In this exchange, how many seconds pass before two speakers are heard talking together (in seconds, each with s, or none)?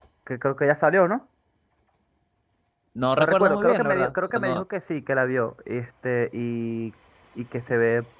3.2 s